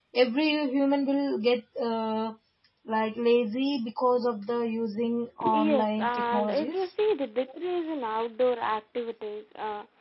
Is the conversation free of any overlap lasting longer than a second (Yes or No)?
No